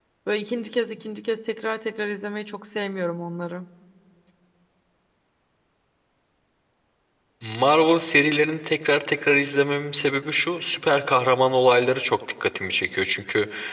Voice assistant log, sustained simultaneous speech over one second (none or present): none